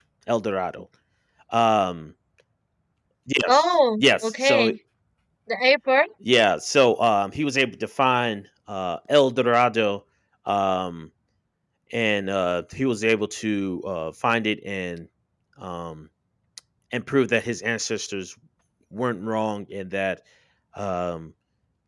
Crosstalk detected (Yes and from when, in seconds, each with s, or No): Yes, from 3.5 s